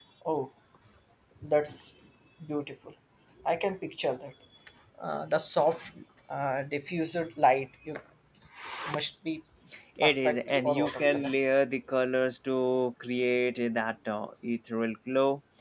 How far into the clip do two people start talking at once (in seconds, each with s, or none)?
10.0 s